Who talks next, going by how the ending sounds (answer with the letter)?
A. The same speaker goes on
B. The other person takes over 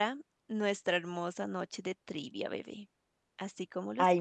B